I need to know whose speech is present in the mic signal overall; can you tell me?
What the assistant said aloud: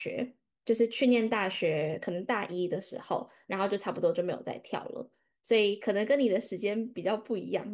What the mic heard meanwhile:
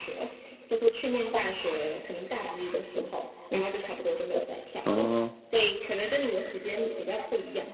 both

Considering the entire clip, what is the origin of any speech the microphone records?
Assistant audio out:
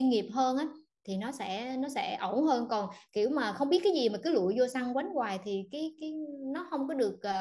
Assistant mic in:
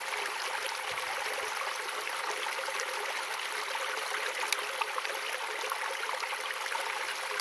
neither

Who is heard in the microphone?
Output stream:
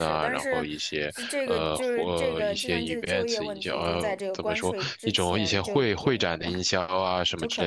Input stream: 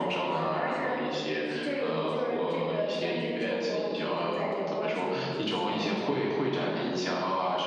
echo only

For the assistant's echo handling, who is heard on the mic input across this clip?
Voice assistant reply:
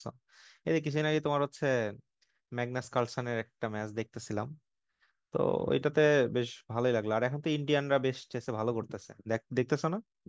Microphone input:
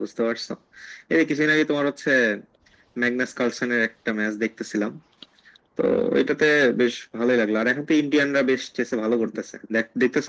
echo only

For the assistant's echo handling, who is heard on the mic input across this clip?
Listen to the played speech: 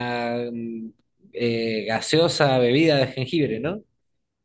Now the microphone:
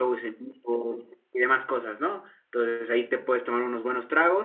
user only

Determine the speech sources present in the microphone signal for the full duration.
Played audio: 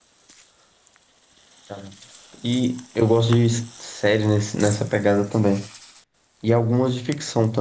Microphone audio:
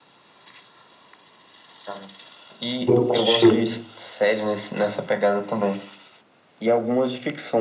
both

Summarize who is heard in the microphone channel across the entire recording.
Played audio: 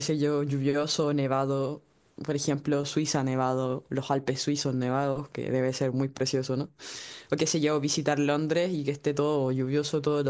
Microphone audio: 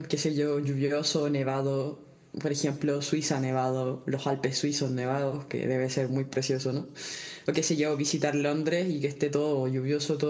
echo only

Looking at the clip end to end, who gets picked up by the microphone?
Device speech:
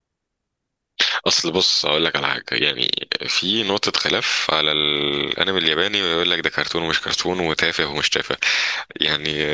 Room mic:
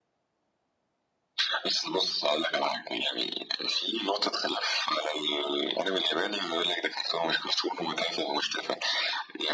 echo only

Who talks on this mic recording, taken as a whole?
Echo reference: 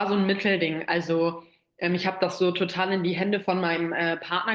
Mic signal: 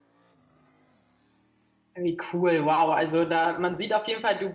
user only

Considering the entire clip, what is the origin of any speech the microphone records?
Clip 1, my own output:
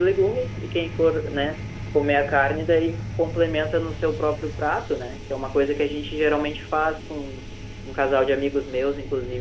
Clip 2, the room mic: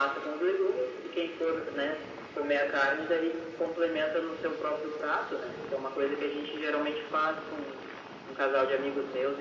echo only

